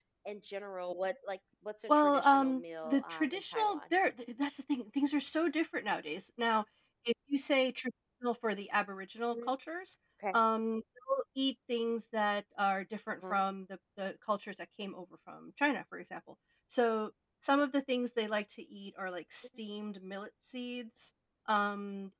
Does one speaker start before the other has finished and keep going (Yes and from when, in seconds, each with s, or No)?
Yes, from 1.9 s